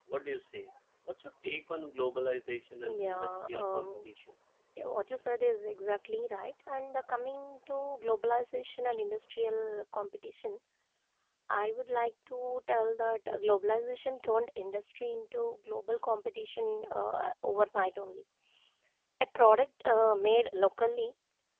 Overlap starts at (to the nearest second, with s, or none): 3 s